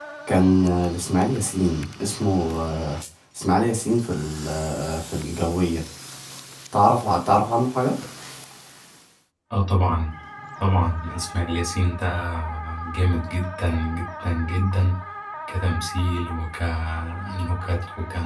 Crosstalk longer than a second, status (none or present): none